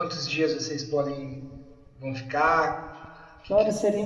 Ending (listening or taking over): taking over